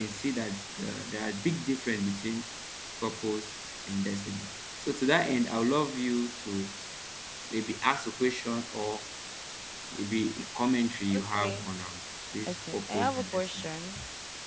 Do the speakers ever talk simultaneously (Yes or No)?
Yes